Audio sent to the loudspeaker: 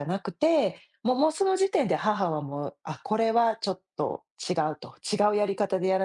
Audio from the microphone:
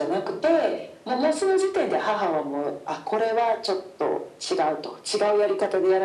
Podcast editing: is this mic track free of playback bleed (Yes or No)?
No